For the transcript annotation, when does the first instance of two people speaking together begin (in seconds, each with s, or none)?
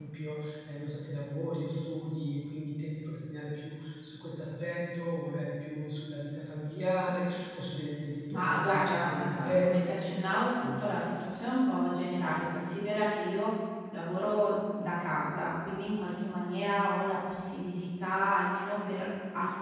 8.3 s